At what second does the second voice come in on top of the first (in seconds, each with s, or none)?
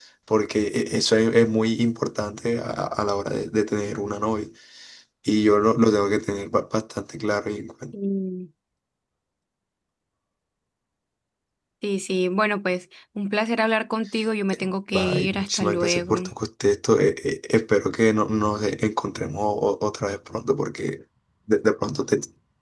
14.9 s